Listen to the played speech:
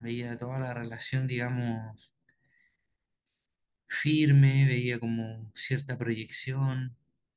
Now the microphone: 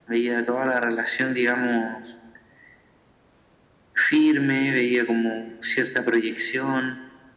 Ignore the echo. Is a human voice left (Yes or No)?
No